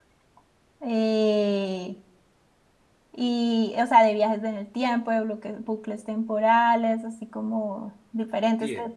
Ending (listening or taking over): listening